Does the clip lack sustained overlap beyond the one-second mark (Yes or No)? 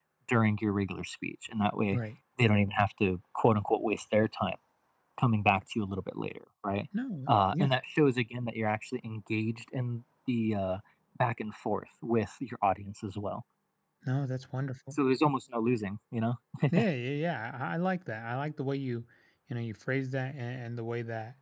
Yes